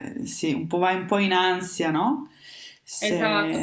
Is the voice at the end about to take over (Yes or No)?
Yes